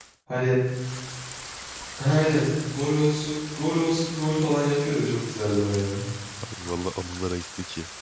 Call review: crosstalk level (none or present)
none